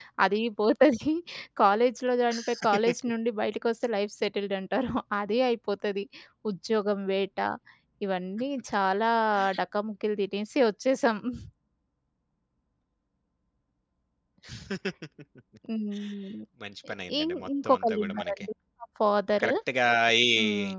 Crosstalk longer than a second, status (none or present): present